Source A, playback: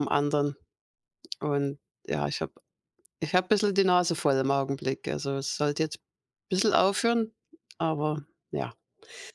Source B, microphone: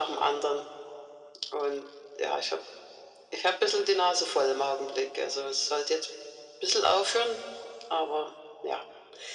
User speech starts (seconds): none

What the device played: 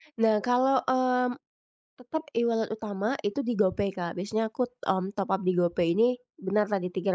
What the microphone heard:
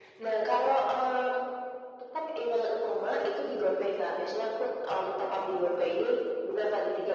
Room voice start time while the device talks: none

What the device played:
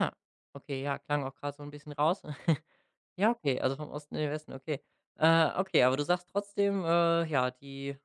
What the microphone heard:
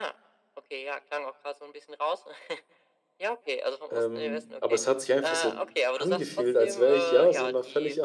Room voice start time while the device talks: 3.9 s

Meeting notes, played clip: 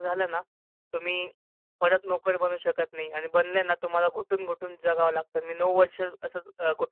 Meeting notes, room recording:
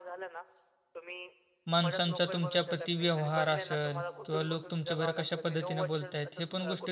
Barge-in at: 1.7 s

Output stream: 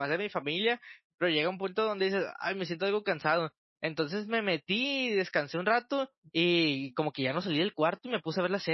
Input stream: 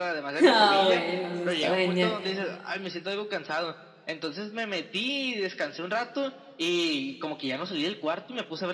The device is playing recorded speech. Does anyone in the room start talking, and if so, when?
0.5 s

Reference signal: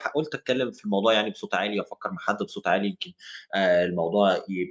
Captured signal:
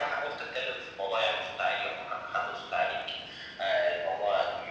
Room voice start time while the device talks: none

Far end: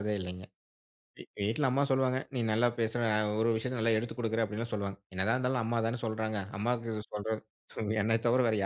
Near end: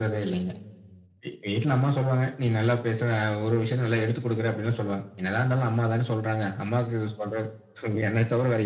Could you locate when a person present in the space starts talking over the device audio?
none

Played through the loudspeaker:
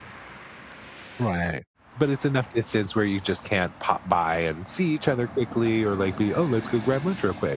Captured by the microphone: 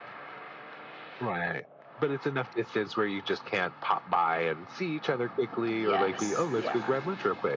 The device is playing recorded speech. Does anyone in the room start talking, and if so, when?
5.6 s

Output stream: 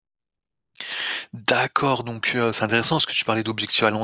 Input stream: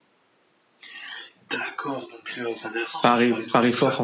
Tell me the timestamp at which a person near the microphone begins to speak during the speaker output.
3.0 s

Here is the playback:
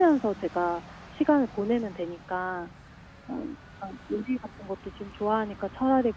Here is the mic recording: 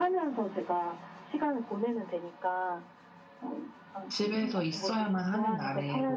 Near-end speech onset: 4.1 s

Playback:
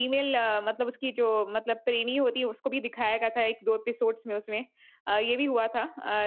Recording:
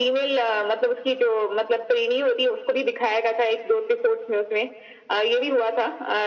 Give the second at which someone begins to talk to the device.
none

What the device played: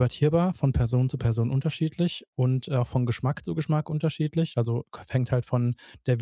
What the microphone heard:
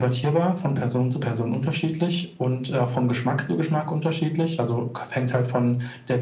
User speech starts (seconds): none

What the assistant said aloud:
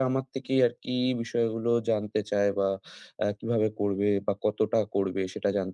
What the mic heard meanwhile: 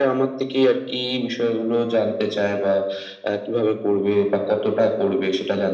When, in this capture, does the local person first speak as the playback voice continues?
none

